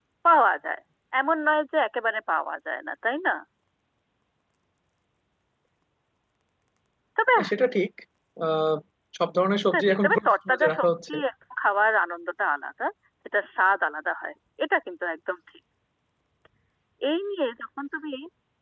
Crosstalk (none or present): present